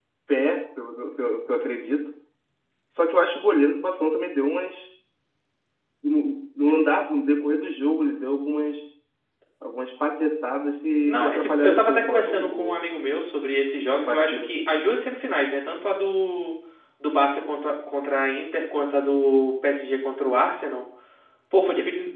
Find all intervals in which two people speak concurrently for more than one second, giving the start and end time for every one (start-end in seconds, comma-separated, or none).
11.1-12.8